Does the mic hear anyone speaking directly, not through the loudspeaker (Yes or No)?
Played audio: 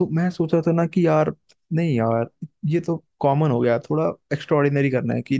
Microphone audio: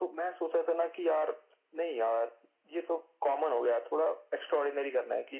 No